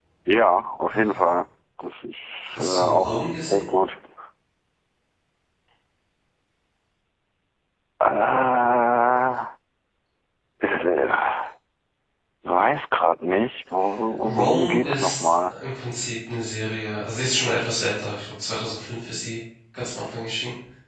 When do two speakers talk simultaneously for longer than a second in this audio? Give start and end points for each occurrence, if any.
2.5-3.7, 14.2-15.5

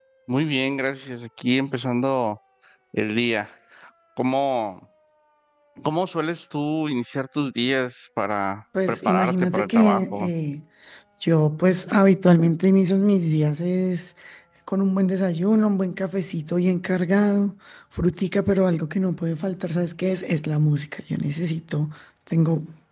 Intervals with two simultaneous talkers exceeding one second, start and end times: 8.9-10.3

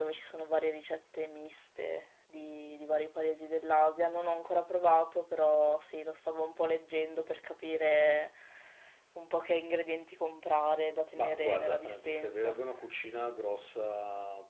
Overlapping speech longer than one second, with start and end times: 11.1-12.6

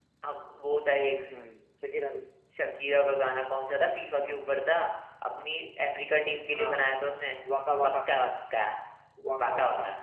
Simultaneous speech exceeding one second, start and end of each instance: none

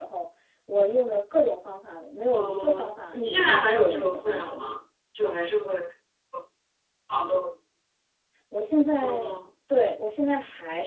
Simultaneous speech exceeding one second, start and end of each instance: 2.3-4.6

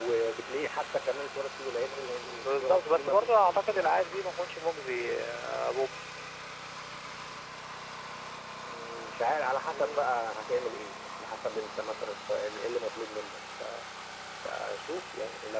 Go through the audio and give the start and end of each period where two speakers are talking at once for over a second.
2.4-3.9

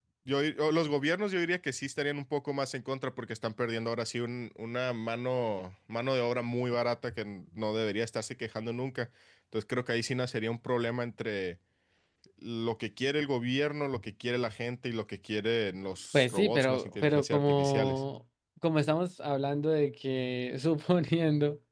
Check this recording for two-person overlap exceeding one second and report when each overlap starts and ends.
16.1-18.0

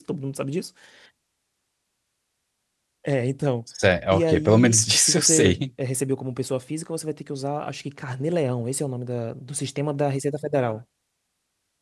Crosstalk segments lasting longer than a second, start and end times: 4.1-5.6

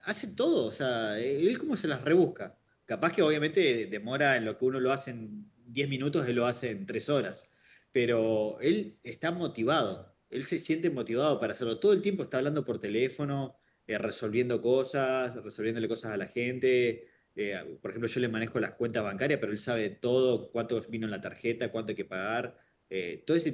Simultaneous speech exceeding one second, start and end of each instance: none

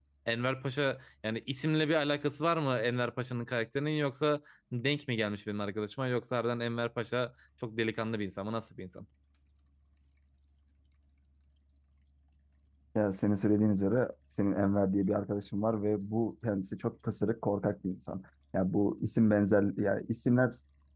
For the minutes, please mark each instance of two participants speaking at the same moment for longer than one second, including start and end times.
none

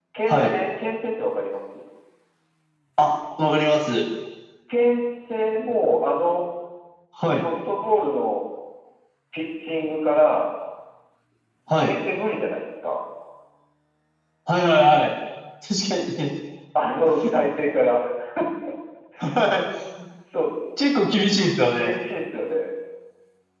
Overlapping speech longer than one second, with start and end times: none

